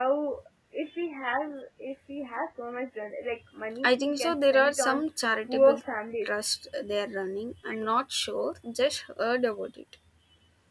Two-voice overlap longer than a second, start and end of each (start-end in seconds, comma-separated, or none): 3.8-5.0